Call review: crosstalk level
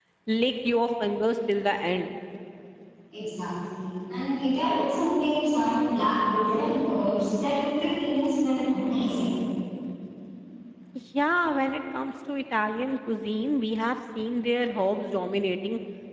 none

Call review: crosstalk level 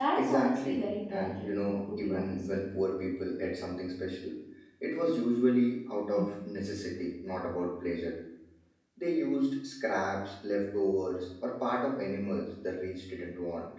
present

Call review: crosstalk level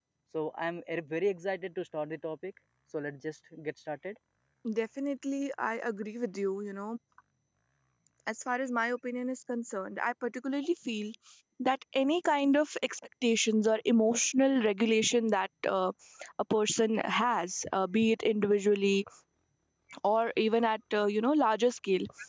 none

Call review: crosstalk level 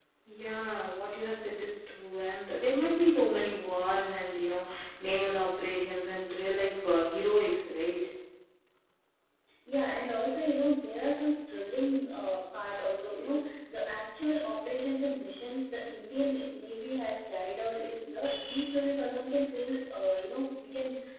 none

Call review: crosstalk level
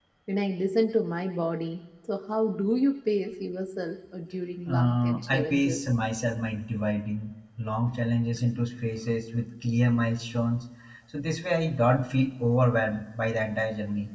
present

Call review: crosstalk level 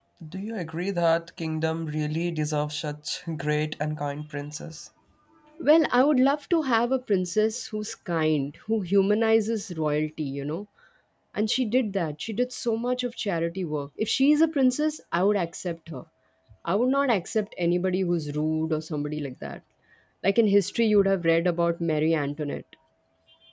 none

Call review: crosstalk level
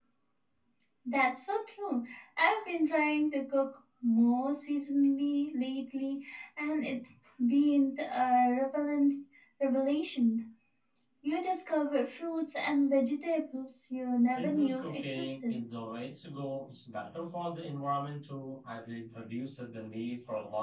present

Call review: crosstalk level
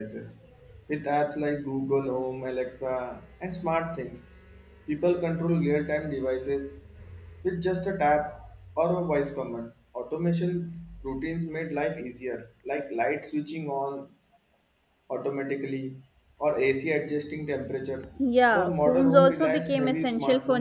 present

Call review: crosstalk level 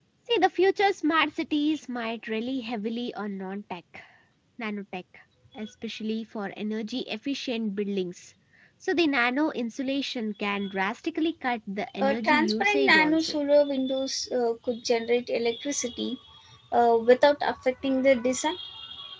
present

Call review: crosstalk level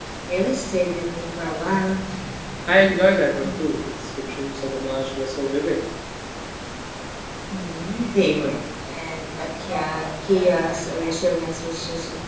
none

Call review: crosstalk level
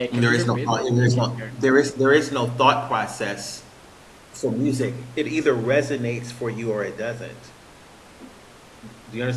present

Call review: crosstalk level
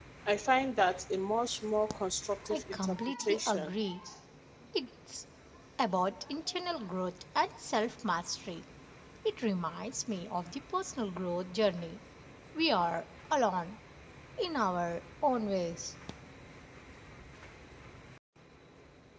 present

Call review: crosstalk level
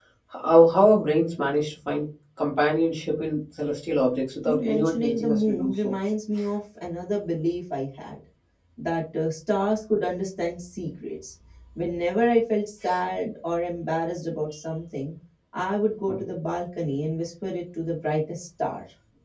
present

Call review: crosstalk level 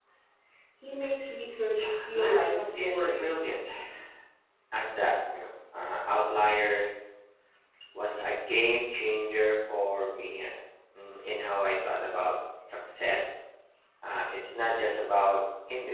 present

